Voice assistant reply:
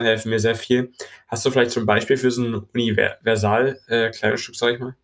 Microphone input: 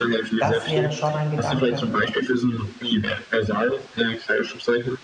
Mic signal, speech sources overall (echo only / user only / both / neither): both